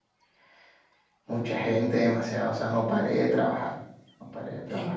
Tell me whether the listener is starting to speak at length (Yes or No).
Yes